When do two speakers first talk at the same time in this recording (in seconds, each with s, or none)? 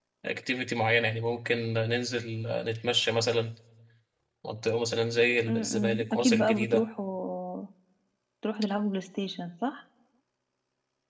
5.4 s